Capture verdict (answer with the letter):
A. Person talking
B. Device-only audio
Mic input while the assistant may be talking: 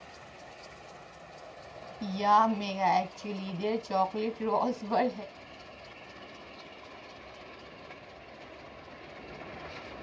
A